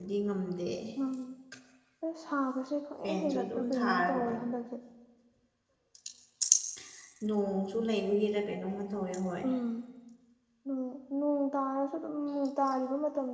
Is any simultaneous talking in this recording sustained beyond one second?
Yes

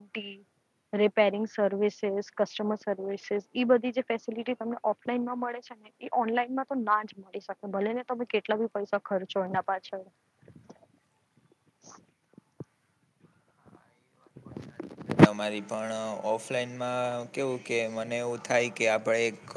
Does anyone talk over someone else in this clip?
No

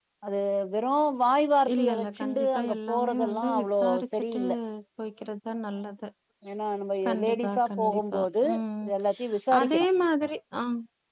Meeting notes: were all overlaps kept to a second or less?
No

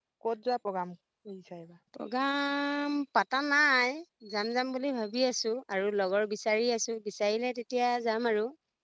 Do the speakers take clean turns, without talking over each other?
Yes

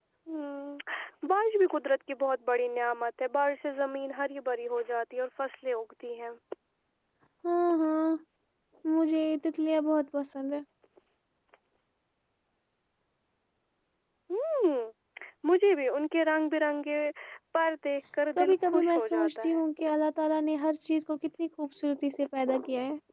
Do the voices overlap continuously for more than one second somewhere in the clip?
Yes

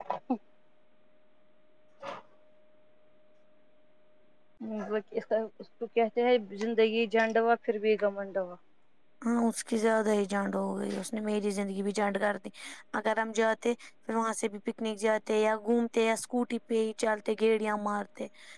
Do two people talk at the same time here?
No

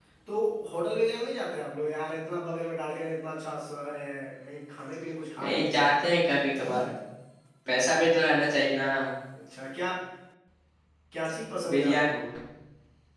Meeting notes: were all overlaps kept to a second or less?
Yes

